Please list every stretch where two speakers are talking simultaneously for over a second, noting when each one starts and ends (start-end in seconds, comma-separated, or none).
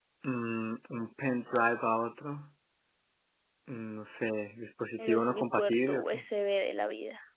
5.0-6.2